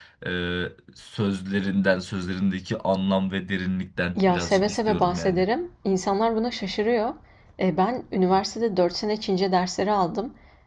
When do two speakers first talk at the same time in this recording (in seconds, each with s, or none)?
4.2 s